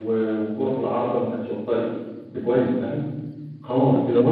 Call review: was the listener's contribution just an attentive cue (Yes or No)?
Yes